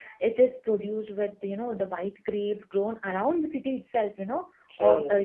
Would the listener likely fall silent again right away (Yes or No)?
Yes